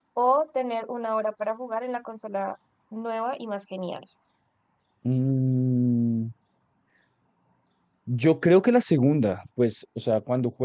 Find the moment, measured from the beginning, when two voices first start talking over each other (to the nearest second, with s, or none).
none